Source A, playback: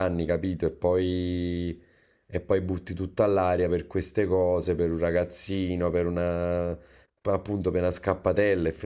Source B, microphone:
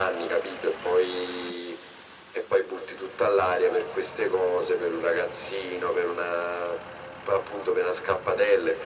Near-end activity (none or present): none